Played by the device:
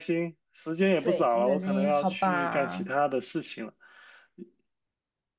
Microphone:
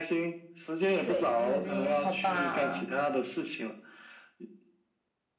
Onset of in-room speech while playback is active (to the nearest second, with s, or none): none